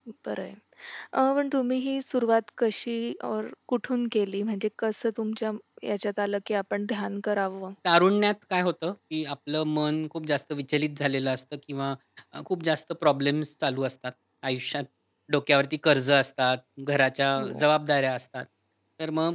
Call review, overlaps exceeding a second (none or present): none